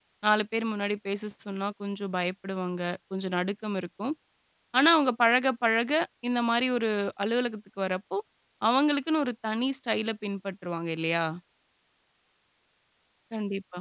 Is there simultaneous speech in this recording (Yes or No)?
No